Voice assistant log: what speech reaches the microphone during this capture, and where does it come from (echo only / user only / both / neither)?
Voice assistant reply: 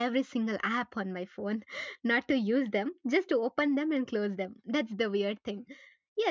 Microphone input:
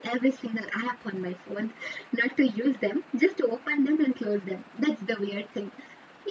echo only